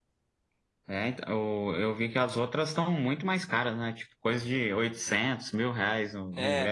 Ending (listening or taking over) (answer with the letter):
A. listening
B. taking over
B